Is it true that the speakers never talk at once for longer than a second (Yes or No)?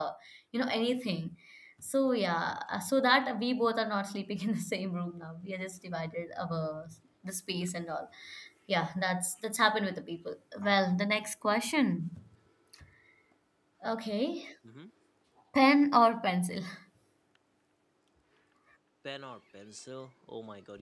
Yes